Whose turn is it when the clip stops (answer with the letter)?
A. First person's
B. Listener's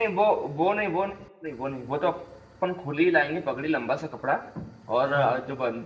A